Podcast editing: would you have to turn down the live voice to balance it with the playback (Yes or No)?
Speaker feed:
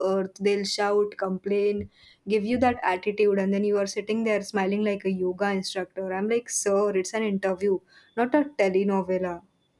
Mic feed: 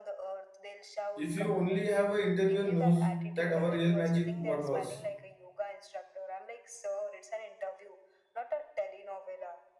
Yes